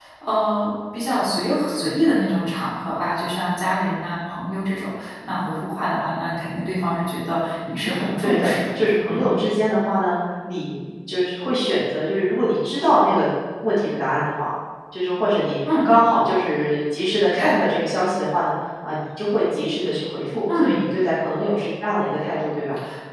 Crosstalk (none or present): present